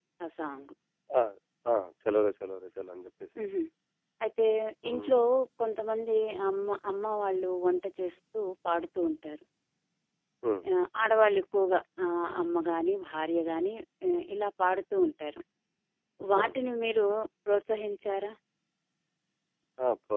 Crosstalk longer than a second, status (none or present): none